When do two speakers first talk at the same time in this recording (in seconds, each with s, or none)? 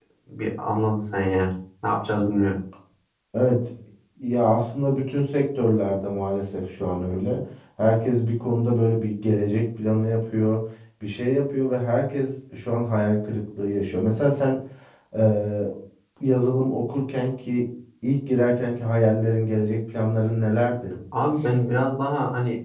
none